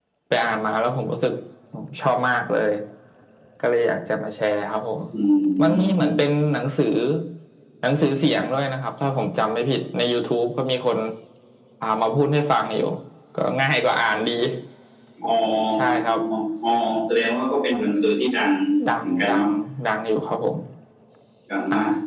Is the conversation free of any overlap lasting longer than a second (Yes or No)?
Yes